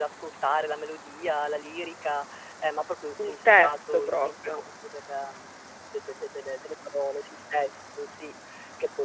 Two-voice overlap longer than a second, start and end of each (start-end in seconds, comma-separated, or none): 3.2-4.6